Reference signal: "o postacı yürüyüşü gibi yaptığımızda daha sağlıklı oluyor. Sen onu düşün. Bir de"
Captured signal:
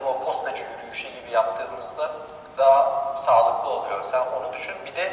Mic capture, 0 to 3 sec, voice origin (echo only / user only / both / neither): echo only